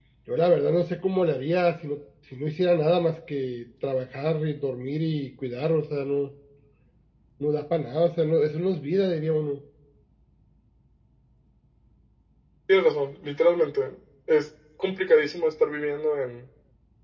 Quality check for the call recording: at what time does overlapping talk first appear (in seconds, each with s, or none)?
none